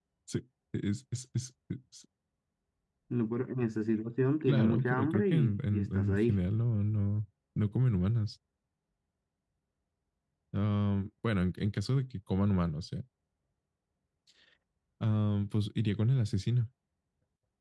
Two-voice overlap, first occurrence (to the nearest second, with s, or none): 4 s